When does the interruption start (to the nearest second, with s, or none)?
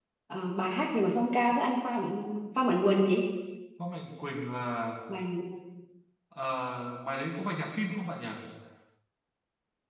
none